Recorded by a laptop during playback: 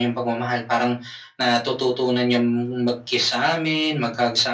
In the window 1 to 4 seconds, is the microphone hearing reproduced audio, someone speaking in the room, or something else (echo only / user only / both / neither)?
echo only